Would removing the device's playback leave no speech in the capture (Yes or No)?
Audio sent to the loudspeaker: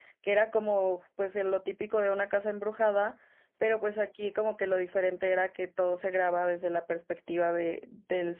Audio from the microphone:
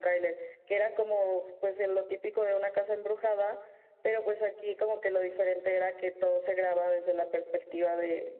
Yes